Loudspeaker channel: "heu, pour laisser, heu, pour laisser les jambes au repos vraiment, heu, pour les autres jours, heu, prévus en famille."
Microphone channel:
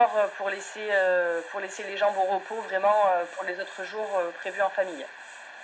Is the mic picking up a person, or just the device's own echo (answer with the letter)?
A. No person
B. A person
A